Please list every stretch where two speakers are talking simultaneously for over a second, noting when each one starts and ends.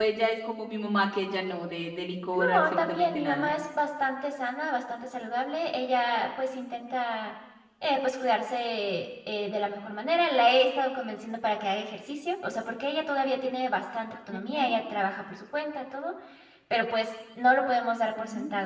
2.3-3.6

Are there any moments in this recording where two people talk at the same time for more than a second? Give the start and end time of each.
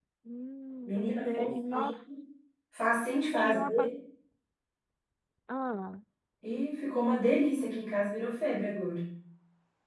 0.9-2.2

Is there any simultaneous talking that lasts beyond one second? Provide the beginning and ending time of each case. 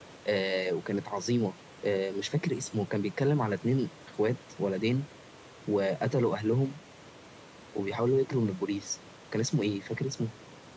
none

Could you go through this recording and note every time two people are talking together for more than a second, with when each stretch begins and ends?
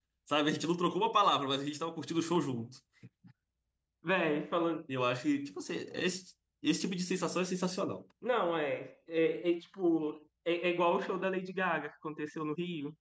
none

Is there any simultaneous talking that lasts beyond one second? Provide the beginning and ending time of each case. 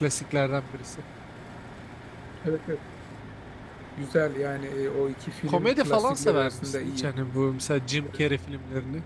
5.5-7.1

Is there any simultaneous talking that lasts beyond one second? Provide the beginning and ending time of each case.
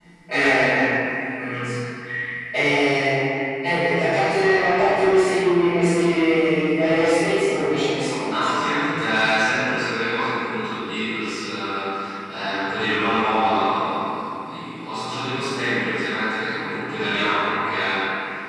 none

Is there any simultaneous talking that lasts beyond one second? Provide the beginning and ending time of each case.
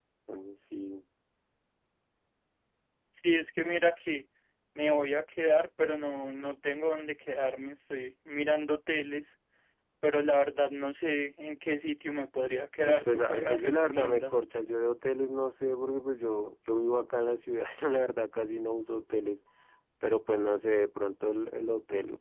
12.8-14.4

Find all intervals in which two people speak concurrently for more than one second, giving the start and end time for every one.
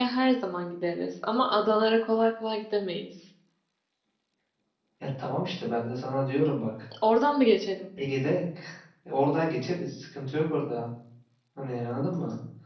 none

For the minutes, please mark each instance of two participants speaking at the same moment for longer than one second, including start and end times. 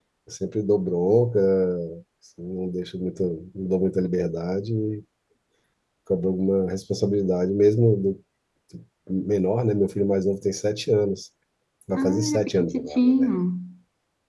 11.9-13.3

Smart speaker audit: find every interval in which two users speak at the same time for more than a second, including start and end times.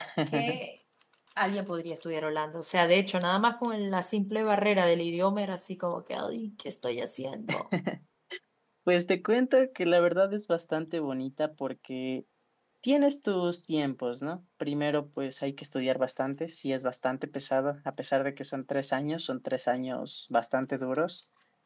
none

